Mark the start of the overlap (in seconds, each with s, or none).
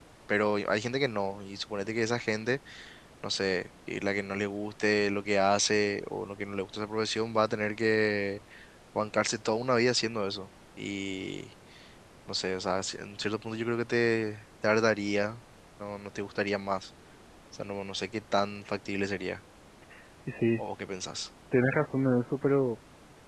none